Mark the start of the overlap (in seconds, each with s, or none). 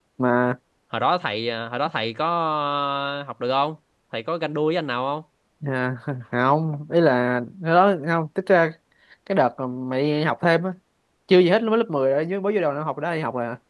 none